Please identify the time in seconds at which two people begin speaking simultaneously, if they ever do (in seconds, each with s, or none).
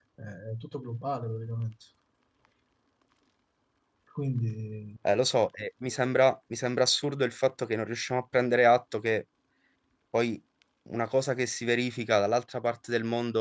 none